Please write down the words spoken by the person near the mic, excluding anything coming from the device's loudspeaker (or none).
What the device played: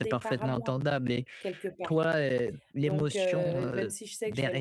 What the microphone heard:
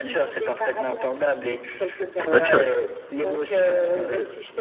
c'est une bonne chose.